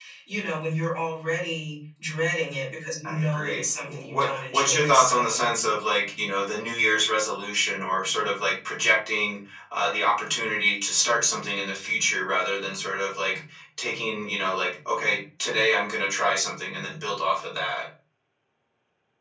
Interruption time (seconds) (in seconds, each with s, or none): 3.0 s